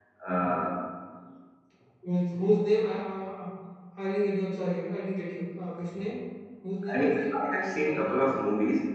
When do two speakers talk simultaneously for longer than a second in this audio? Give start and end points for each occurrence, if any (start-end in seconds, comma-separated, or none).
6.9-8.3